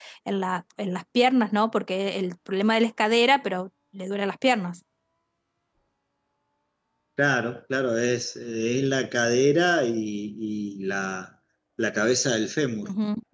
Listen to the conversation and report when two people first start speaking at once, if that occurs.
none

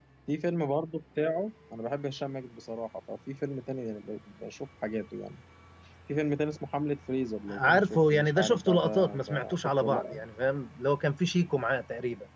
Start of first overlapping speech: 7.5 s

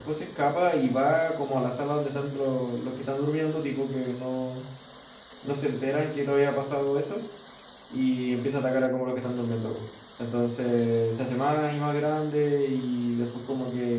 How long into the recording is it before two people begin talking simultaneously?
none

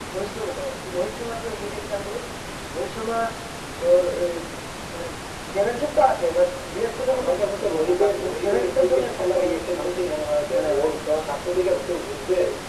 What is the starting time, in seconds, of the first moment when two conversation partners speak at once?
7.1 s

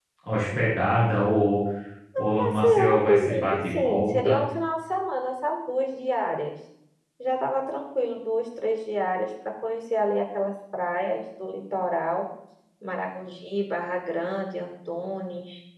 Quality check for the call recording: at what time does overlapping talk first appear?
2.4 s

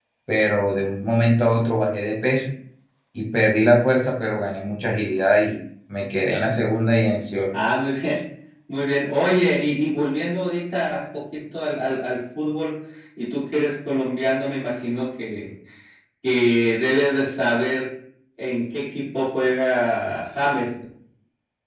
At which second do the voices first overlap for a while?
none

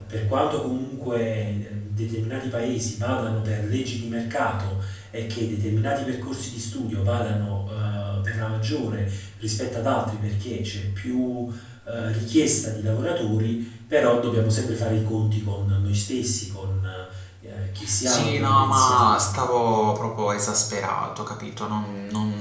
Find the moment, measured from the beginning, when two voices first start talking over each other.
18.0 s

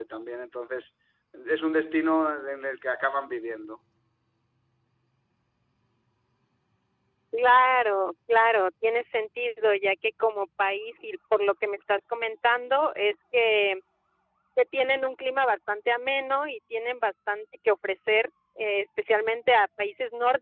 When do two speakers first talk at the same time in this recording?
none

